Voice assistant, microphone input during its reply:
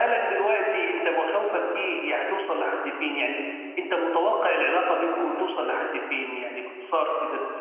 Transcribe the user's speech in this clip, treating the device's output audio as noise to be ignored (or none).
none